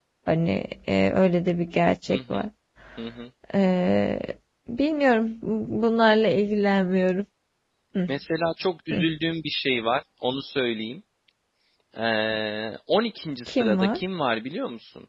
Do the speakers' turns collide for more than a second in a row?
No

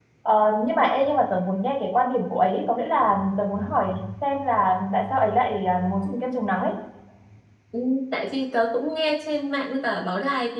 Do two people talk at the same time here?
No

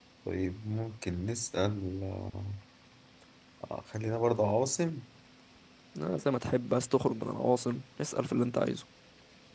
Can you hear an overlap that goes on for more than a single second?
No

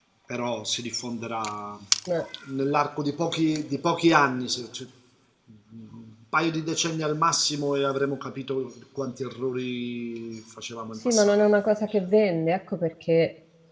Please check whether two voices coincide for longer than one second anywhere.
No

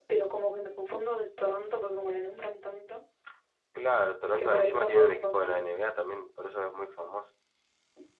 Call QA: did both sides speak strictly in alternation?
No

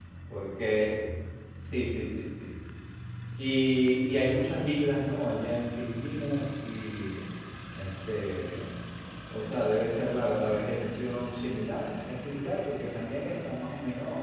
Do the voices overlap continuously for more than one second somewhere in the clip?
No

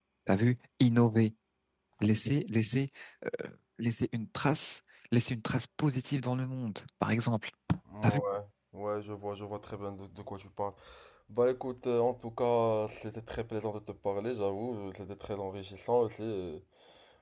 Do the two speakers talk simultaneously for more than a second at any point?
No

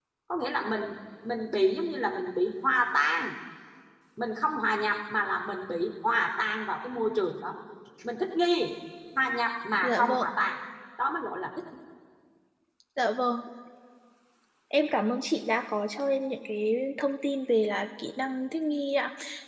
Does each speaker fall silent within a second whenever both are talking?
Yes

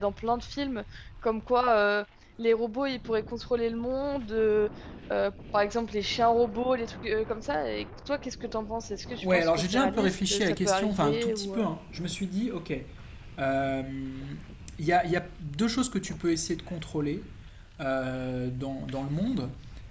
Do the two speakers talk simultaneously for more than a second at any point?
Yes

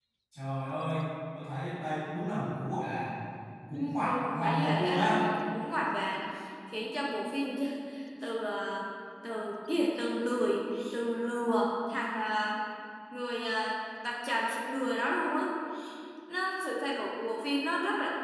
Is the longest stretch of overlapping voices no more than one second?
No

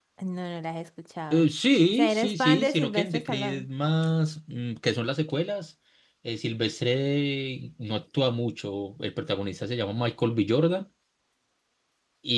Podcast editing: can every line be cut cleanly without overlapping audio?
No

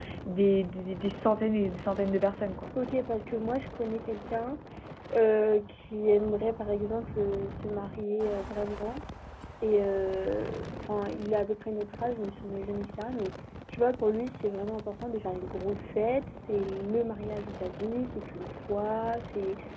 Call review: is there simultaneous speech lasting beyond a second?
No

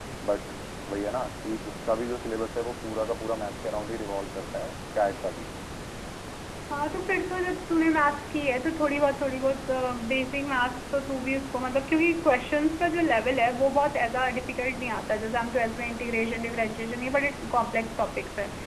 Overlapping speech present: No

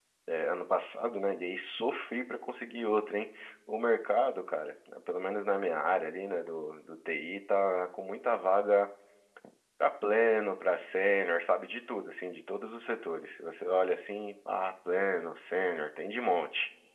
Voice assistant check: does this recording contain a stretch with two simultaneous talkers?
No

